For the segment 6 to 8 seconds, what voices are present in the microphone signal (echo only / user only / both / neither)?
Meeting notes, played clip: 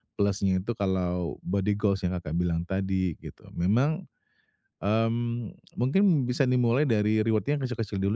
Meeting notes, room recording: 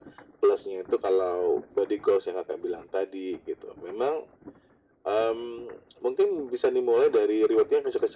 echo only